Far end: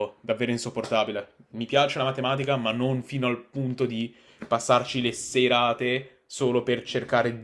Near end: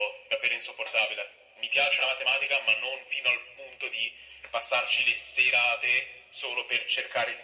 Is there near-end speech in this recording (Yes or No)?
No